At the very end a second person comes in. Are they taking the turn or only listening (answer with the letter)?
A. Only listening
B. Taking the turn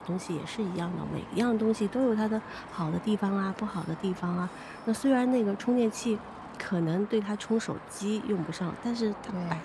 A